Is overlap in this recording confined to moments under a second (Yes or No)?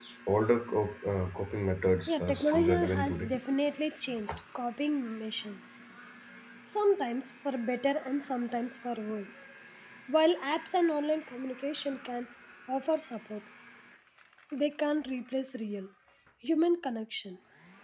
No